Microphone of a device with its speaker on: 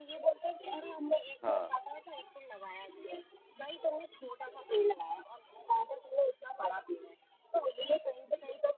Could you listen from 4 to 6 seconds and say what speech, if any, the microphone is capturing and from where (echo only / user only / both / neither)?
echo only